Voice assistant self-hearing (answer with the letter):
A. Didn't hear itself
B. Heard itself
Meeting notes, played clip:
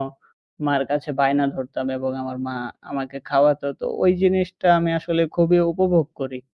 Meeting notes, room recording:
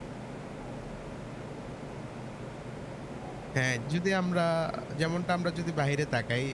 A